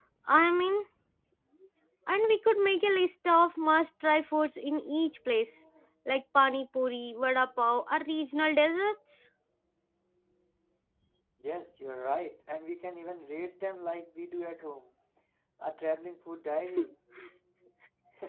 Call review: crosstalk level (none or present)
none